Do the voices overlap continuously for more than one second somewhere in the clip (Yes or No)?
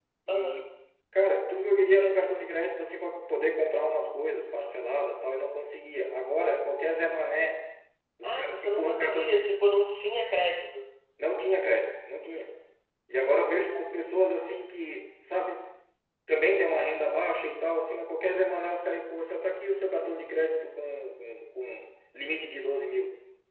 Yes